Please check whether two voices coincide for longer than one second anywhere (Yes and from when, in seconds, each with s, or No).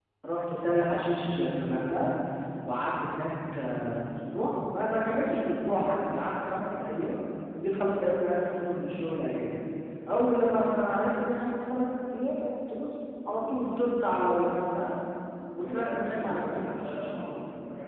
Yes, from 15.6 s